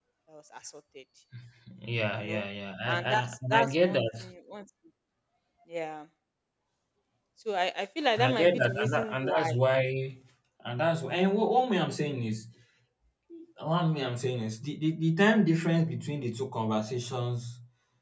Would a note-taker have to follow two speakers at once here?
Yes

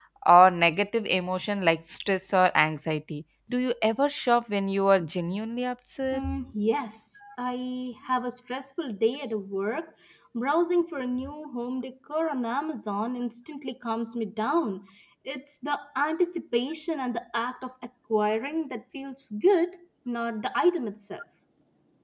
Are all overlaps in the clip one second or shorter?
Yes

